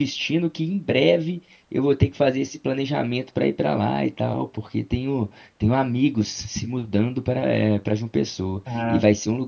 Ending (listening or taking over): listening